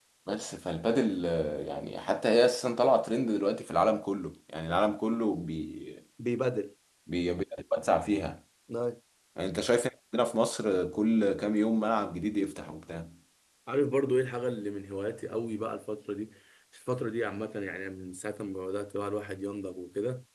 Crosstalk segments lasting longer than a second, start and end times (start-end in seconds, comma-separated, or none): none